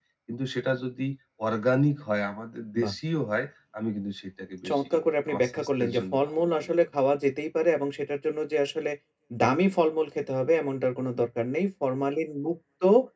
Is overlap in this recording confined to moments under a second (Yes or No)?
No